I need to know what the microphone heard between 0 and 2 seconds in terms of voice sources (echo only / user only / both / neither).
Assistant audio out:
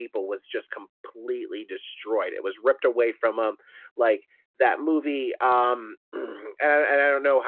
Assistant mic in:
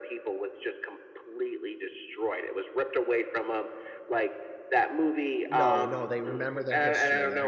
echo only